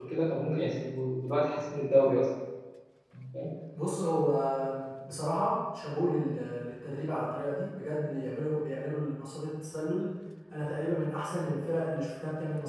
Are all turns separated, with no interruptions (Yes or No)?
Yes